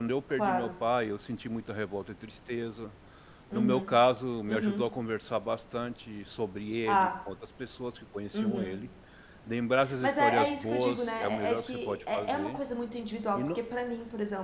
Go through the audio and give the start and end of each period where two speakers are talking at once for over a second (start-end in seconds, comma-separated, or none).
10.0-12.6